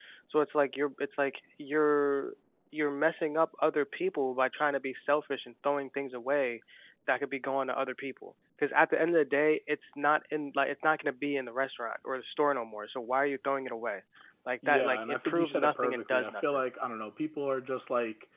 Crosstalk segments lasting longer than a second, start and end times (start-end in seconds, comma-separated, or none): 14.7-16.6